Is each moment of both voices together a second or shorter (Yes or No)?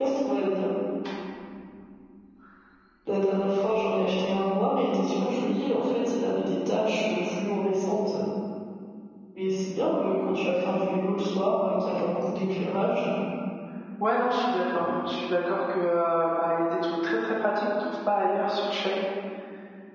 Yes